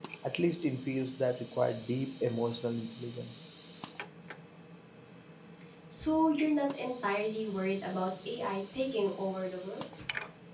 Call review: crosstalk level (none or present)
none